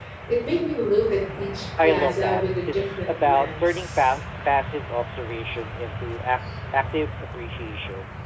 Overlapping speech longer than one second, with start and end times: 1.8-4.0

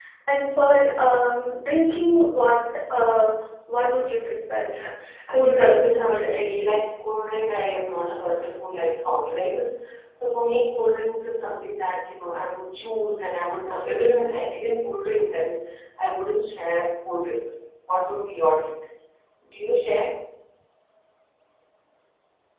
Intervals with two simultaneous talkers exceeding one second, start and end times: 5.3-6.8

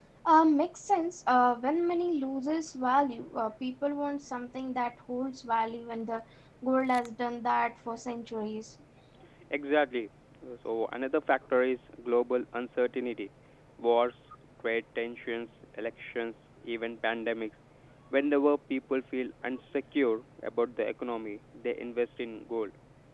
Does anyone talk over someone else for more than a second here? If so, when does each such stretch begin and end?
none

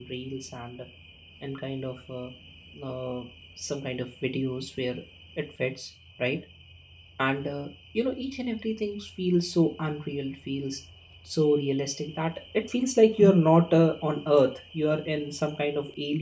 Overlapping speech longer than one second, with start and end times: none

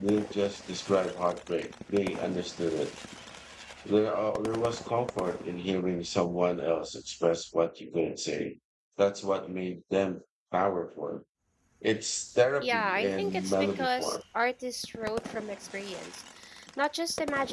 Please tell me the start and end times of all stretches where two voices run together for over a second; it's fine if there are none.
12.6-14.2

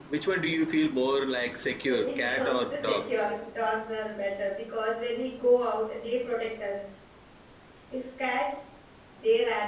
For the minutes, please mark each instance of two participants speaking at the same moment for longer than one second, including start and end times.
1.8-3.4

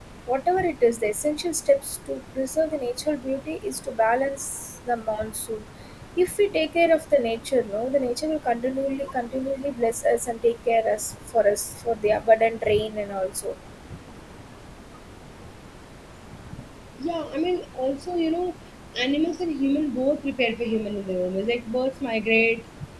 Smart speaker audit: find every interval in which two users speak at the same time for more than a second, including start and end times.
none

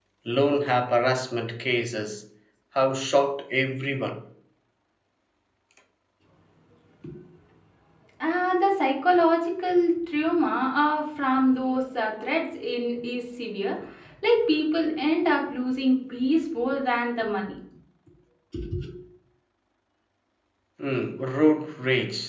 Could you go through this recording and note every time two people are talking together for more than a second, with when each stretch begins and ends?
none

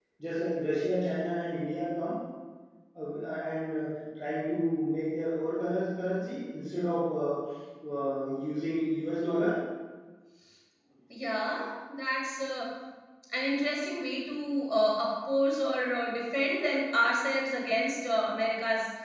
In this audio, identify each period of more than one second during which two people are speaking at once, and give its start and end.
none

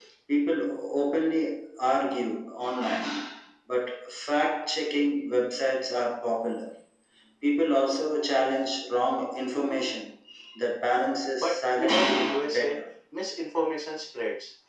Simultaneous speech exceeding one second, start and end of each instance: 11.4-12.8

